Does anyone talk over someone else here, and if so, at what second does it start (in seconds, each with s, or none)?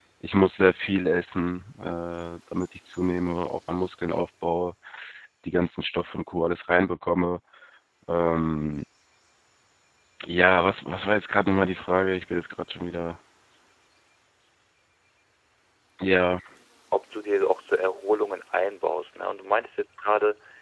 none